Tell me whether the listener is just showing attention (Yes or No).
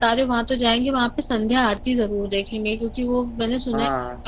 Yes